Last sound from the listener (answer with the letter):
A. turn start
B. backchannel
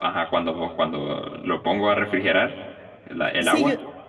A